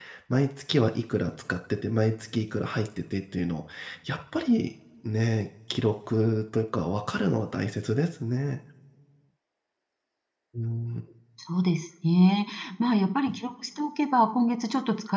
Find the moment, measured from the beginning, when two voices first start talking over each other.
none

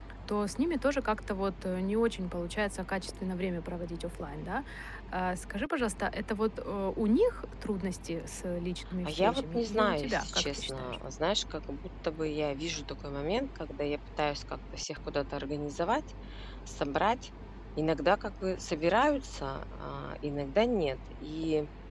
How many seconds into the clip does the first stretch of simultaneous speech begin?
9.0 s

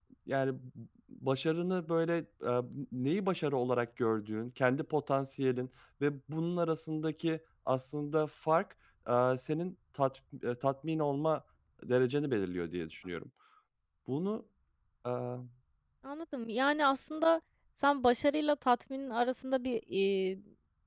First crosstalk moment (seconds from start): none

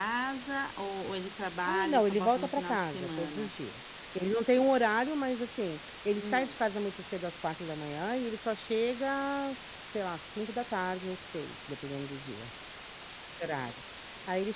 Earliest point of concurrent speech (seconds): 1.7 s

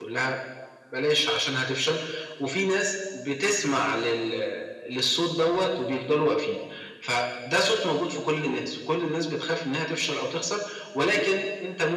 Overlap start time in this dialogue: none

